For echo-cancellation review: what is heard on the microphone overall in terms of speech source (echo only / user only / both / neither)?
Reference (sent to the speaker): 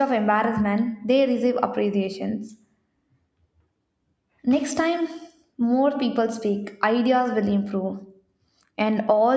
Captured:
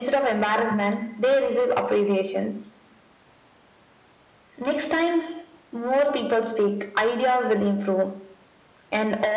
echo only